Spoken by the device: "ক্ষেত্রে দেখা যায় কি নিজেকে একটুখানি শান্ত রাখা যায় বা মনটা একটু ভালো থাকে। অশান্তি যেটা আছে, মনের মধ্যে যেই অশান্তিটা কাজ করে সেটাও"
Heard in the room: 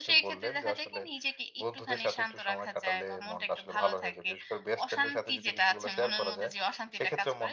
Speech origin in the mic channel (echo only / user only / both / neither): both